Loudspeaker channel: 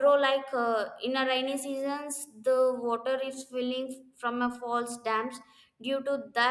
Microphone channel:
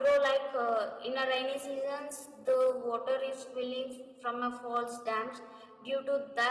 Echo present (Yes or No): Yes